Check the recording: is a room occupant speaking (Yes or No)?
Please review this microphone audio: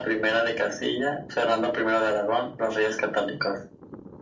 No